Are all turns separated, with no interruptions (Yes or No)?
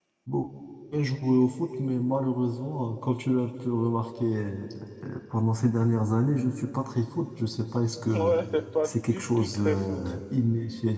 No